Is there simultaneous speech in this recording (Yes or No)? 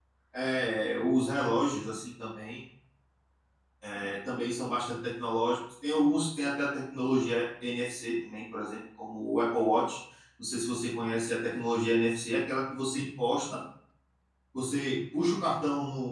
No